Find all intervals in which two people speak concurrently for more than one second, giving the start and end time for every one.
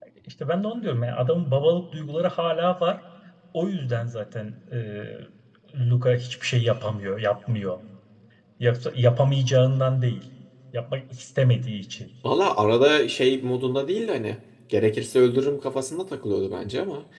none

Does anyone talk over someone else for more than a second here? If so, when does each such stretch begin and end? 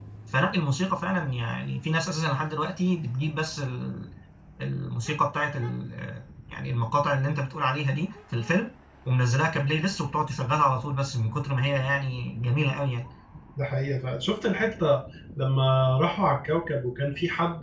none

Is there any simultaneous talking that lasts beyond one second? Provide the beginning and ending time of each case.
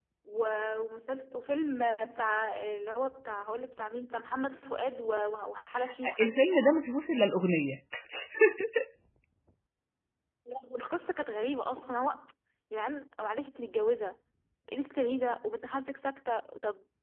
none

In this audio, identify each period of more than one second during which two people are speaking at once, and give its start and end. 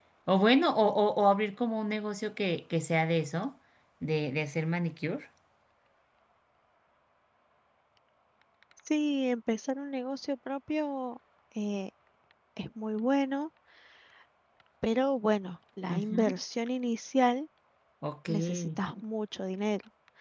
none

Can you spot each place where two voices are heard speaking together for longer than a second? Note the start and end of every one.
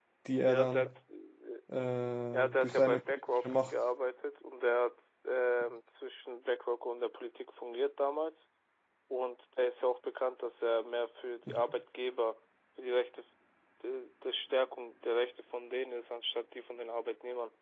2.3-3.7

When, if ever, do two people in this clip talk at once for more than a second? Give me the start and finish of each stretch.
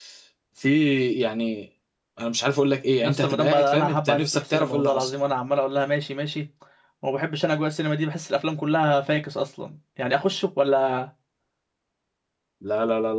3.0-5.1

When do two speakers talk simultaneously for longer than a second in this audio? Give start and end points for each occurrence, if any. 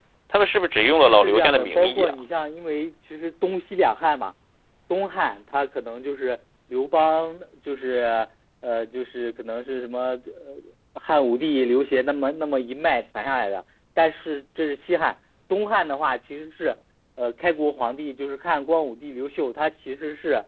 0.9-2.1

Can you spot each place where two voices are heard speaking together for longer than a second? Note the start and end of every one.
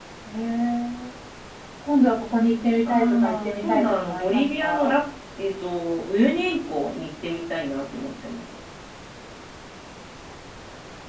2.9-4.9

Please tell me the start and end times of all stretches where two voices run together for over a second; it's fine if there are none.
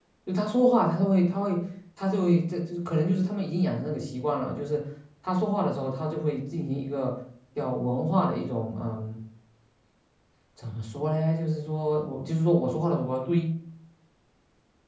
none

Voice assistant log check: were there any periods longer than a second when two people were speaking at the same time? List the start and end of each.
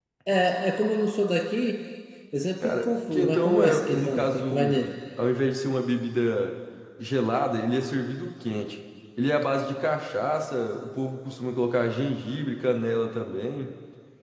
2.6-4.8

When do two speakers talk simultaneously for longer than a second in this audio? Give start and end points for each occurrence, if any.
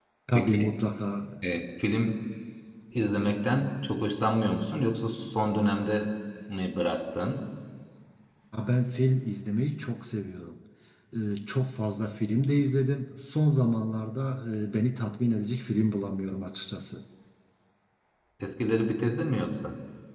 none

